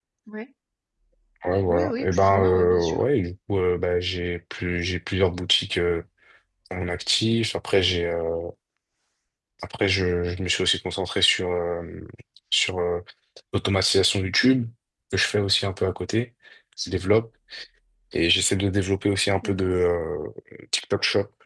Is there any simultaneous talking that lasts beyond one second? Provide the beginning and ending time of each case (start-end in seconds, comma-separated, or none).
1.7-3.0